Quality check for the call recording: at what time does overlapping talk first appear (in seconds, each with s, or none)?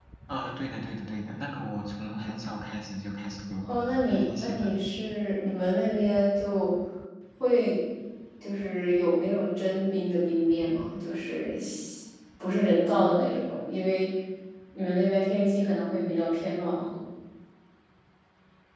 3.6 s